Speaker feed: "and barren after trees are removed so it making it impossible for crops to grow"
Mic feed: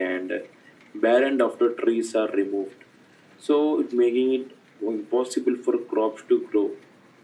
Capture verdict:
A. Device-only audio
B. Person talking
A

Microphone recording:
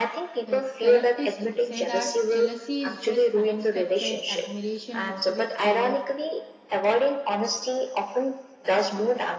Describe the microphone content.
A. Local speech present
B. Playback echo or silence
A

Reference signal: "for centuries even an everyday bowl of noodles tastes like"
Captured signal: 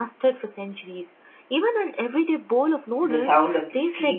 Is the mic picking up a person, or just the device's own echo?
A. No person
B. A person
B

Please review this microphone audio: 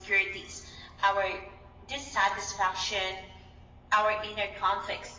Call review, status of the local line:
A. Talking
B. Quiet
B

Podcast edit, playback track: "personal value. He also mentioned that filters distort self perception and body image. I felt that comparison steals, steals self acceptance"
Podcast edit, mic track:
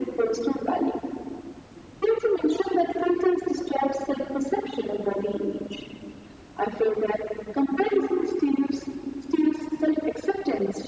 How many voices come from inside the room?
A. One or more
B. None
B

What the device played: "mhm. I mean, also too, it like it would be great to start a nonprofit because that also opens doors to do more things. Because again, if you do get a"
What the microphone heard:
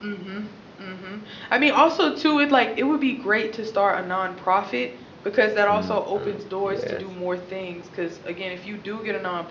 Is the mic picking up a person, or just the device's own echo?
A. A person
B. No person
A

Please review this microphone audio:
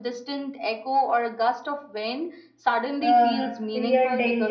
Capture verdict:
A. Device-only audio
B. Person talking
B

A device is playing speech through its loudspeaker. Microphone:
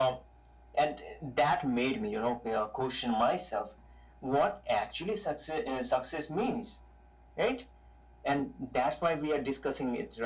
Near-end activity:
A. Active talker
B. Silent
B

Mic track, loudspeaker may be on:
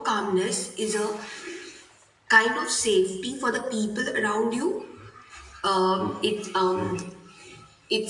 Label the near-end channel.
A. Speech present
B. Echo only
A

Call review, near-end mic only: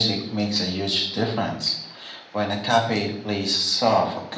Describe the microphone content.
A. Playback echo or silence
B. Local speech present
A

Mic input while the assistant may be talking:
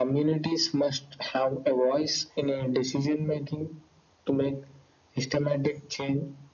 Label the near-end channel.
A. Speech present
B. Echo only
B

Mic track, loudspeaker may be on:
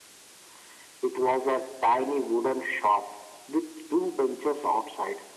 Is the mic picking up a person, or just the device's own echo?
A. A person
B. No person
B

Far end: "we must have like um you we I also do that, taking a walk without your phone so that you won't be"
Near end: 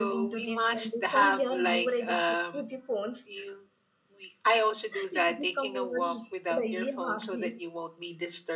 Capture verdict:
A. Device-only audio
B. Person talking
B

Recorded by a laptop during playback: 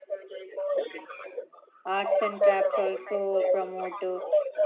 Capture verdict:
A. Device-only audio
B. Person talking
B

